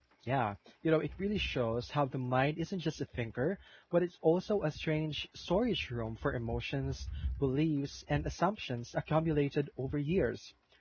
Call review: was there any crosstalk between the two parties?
No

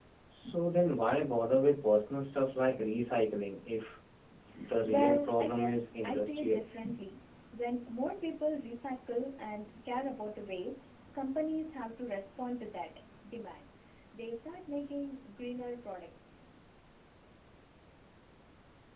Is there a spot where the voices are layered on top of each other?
Yes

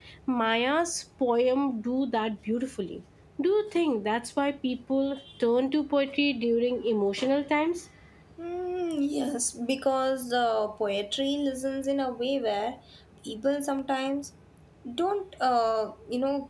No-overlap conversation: Yes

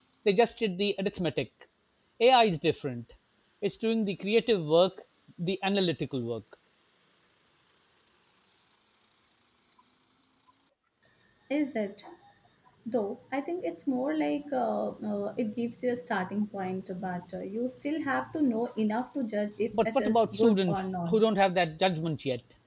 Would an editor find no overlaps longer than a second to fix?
No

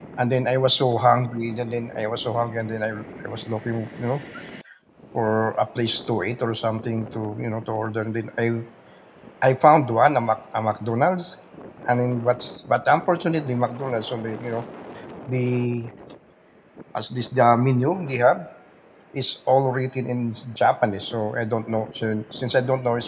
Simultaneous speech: No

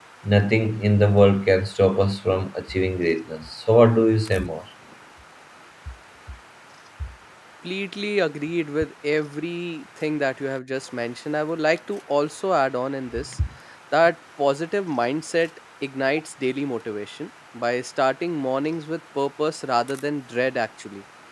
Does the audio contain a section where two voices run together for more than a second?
No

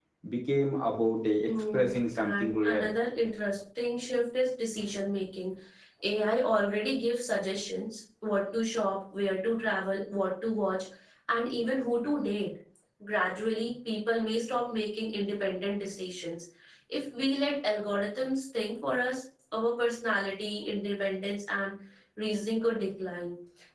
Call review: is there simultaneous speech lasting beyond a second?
Yes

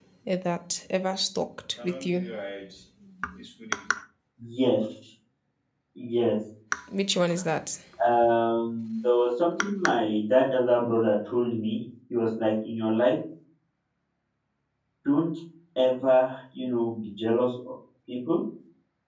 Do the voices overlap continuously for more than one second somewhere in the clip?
No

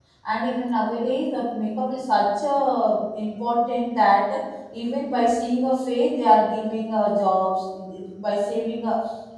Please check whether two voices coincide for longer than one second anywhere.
No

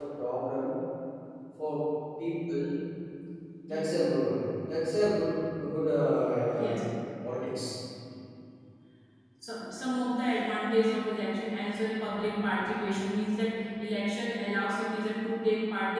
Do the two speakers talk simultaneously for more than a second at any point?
No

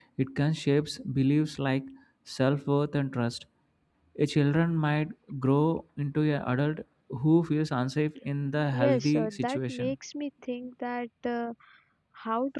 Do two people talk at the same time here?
Yes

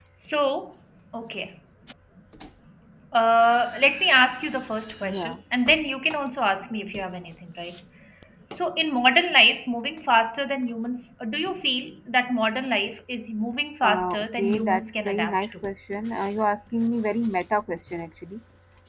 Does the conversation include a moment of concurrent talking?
Yes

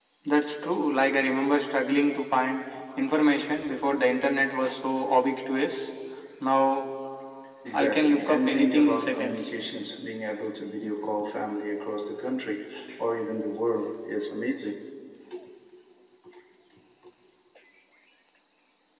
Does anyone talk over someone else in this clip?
Yes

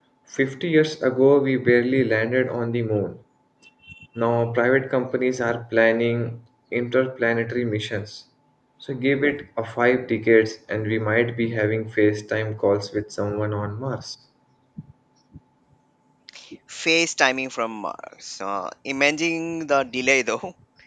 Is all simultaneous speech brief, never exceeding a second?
Yes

